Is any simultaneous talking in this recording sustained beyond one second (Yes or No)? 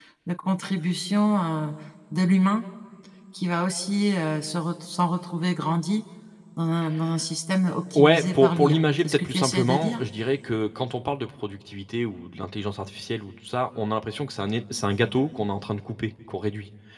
Yes